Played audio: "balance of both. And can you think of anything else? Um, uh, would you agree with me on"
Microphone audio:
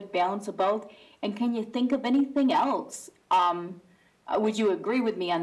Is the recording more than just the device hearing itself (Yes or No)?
No